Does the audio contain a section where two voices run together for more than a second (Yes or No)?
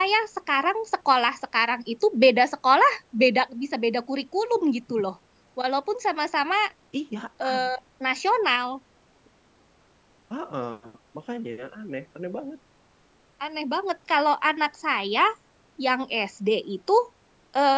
No